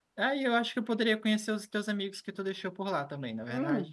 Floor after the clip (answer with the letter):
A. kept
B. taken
B